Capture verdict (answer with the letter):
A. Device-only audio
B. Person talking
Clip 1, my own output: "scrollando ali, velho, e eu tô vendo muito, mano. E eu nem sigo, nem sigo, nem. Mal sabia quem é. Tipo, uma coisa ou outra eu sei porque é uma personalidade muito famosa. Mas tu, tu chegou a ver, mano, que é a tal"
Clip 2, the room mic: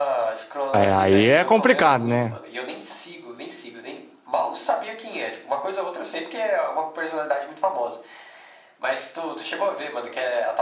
B